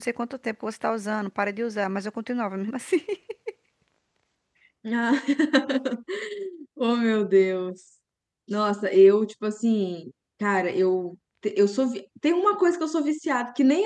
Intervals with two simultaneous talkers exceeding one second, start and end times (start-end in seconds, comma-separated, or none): none